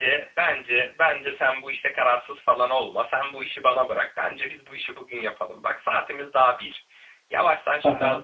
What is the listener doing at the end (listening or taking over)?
listening